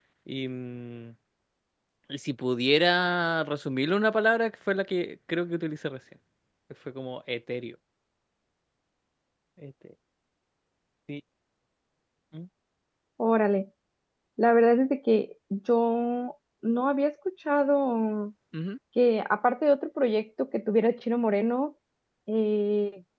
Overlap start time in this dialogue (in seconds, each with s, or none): none